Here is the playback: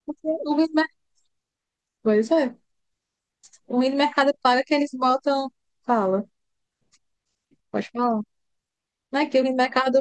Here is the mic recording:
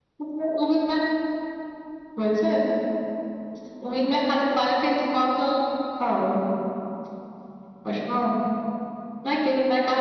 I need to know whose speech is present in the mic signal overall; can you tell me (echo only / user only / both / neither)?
echo only